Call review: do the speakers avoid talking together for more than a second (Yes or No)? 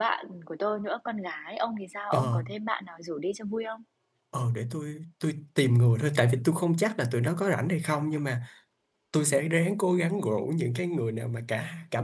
Yes